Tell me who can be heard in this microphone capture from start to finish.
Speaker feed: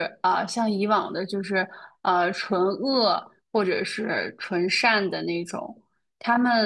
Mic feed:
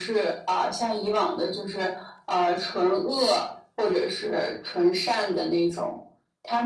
echo only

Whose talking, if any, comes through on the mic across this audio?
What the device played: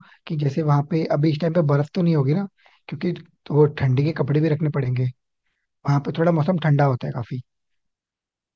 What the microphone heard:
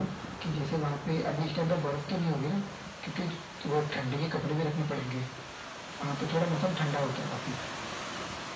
echo only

